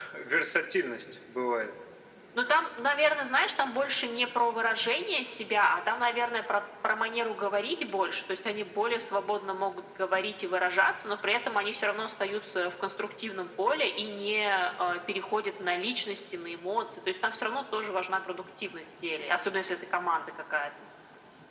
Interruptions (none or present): none